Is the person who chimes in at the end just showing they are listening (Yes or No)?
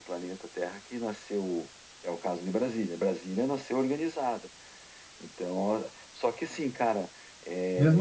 No